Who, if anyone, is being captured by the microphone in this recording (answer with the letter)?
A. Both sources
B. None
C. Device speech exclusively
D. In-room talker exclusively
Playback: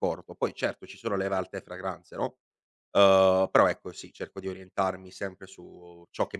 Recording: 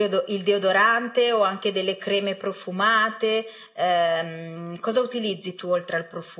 D